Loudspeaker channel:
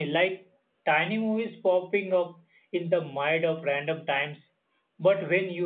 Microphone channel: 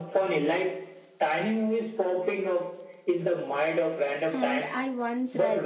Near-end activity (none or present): present